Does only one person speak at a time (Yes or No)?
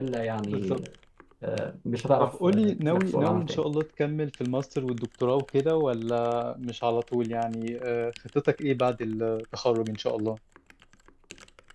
No